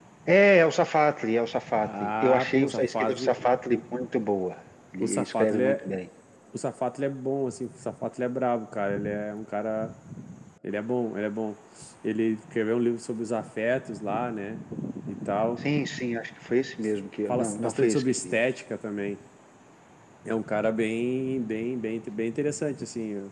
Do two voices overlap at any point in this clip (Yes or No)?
Yes